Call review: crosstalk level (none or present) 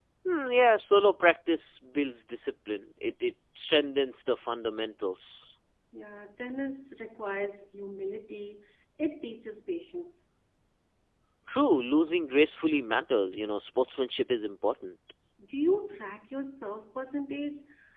none